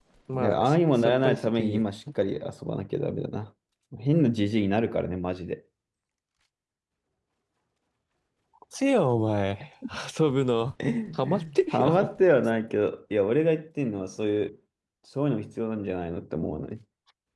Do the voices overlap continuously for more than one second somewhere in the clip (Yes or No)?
Yes